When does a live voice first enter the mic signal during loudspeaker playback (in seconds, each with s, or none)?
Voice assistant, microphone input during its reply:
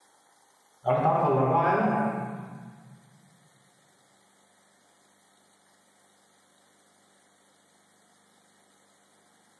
0.8 s